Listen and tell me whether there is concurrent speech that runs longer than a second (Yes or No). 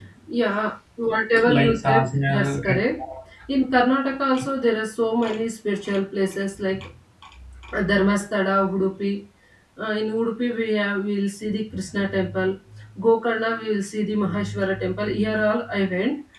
Yes